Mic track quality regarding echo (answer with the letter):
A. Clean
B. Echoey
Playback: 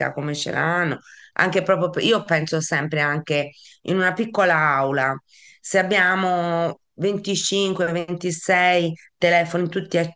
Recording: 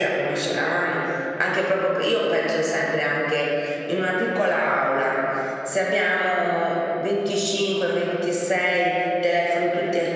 B